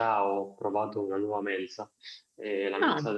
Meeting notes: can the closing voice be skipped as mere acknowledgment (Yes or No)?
Yes